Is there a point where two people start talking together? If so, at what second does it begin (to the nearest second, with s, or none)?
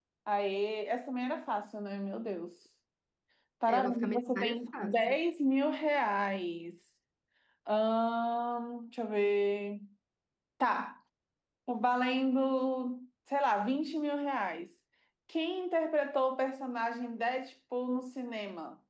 4 s